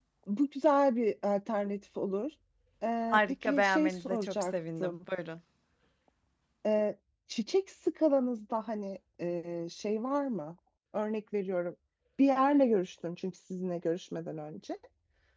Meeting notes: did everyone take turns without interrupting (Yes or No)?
No